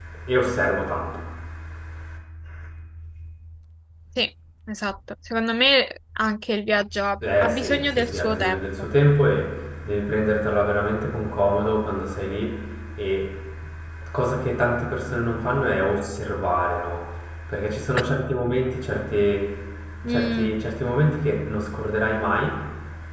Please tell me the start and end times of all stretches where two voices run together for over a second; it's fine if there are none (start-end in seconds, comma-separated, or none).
7.4-8.7